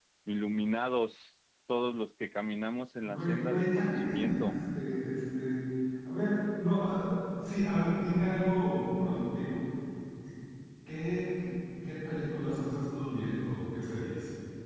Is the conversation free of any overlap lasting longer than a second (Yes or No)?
No